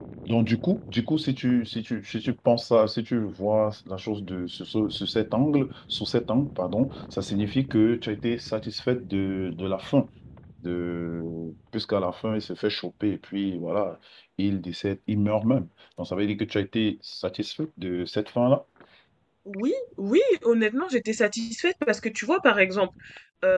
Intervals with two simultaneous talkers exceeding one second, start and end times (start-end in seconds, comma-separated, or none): none